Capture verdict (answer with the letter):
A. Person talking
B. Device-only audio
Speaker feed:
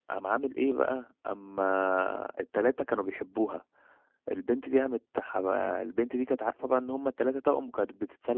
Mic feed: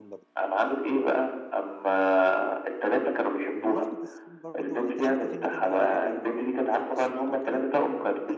A